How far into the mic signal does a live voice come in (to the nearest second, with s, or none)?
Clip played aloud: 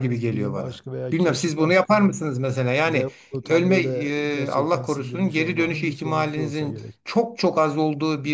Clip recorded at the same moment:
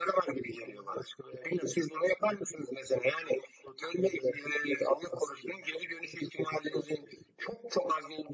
none